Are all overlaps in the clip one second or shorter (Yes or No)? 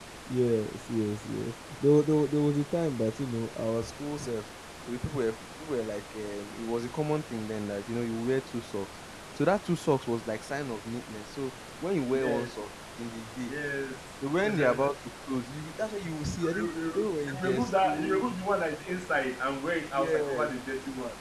No